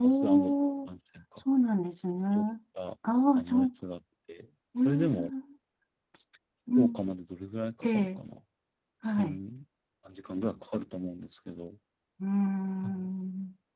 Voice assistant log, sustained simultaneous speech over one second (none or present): none